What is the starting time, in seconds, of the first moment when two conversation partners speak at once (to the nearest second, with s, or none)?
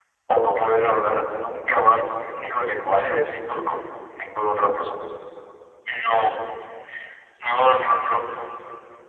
none